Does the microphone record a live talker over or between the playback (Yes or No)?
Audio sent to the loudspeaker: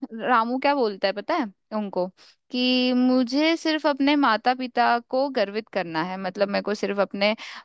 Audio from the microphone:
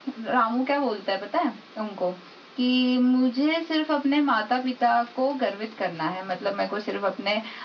No